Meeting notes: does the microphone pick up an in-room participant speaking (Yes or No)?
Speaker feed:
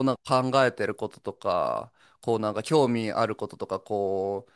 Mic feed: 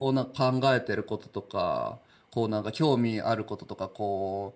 No